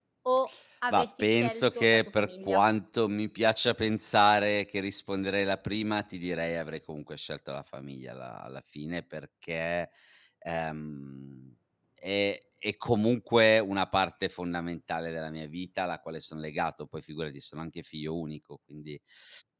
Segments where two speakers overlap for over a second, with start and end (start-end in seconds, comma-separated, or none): 0.9-2.6